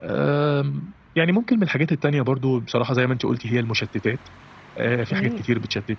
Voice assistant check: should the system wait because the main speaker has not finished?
Yes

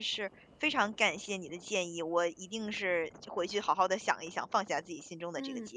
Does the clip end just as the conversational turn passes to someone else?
Yes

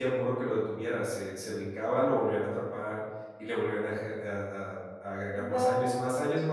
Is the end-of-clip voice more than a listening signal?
No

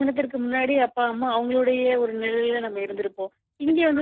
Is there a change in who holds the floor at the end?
No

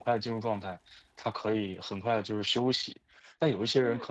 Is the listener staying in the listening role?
Yes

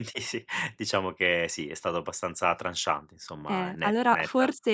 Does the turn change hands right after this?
Yes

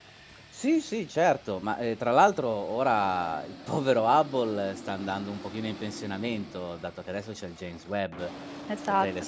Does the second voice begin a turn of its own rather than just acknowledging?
No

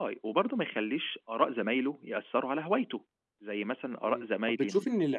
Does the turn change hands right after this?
Yes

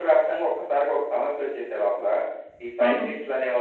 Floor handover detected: No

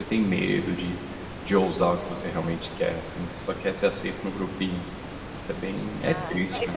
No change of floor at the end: No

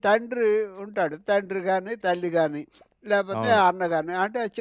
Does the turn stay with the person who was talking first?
Yes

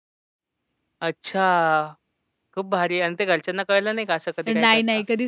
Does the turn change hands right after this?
Yes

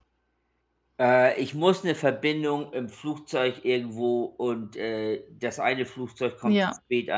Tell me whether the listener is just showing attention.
Yes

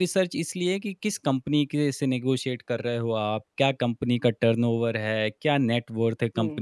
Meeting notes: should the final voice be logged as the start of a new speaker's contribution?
No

